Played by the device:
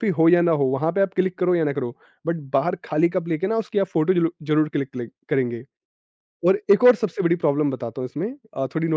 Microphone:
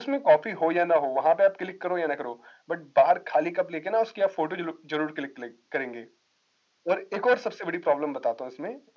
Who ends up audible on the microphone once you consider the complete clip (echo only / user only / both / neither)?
echo only